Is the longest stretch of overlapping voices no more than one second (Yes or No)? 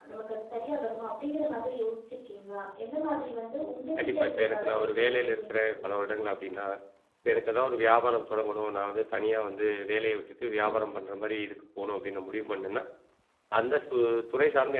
No